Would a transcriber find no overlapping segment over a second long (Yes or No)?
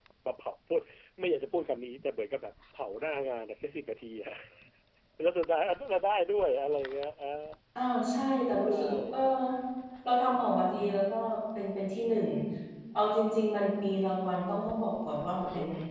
Yes